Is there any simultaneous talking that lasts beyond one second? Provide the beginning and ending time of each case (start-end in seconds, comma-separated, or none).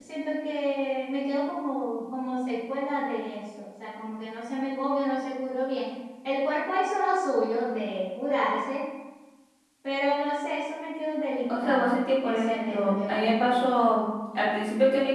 11.6-13.8